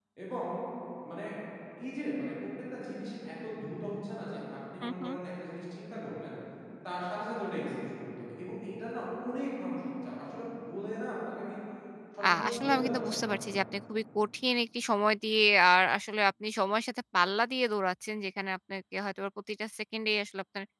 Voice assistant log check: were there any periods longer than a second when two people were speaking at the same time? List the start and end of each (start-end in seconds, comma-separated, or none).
12.2-13.4